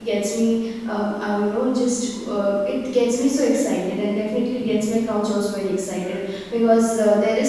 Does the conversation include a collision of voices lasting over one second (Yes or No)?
No